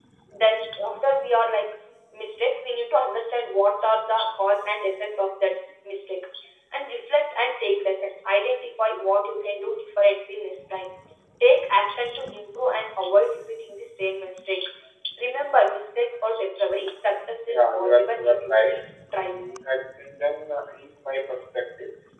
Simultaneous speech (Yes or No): Yes